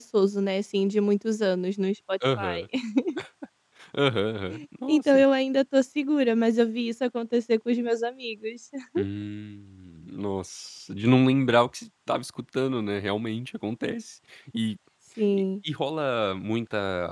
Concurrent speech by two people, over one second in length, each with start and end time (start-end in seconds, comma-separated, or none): none